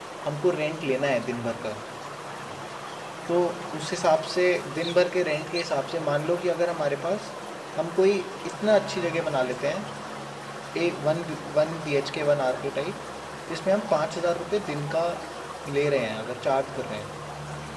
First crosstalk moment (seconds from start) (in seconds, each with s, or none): none